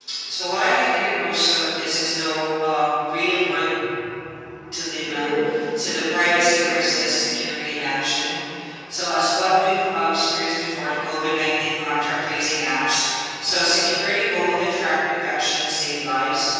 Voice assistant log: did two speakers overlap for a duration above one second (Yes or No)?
Yes